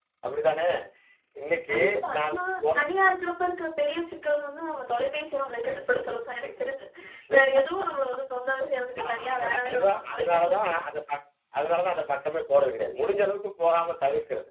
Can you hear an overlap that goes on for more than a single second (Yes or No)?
Yes